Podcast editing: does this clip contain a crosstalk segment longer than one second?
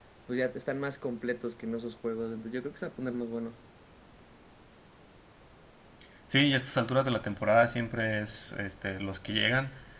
No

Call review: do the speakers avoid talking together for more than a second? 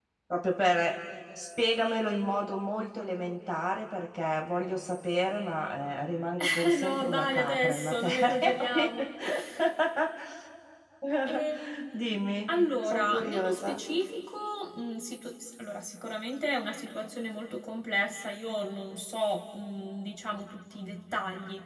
No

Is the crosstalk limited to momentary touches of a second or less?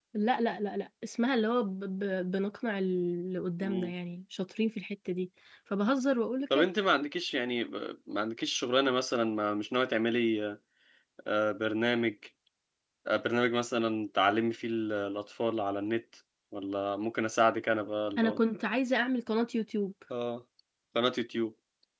Yes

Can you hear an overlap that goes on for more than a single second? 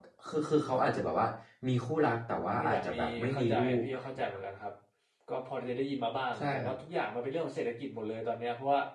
Yes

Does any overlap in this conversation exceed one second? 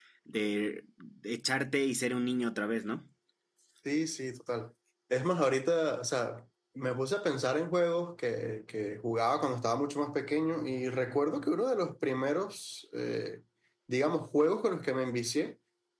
No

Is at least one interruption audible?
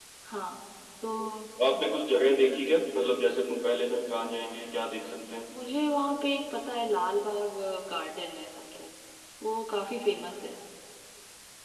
No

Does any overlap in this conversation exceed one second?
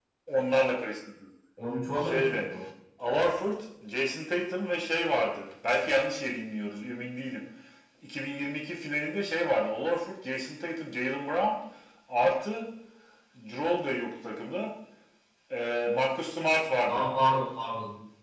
No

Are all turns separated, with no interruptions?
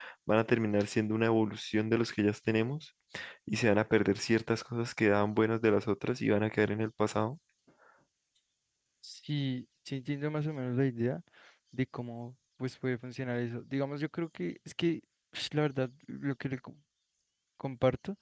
Yes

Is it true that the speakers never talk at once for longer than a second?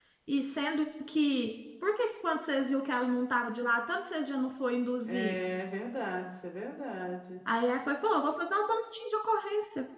Yes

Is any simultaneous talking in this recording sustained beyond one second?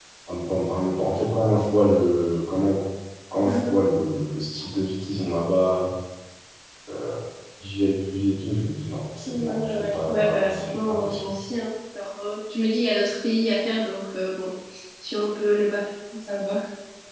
Yes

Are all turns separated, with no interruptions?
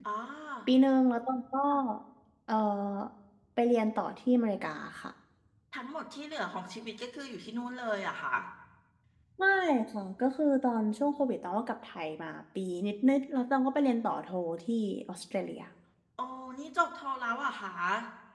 Yes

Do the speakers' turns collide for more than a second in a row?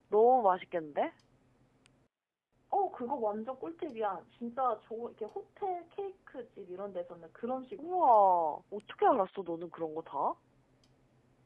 No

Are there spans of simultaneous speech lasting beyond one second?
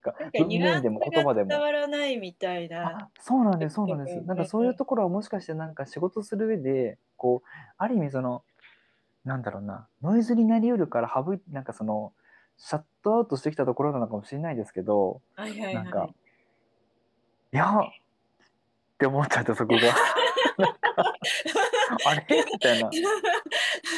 Yes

